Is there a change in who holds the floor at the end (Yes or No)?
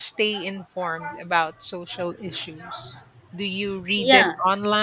No